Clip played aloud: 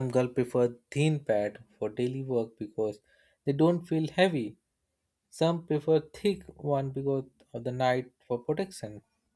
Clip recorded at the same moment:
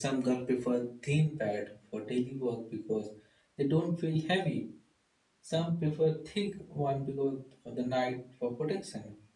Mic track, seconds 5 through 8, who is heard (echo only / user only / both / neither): echo only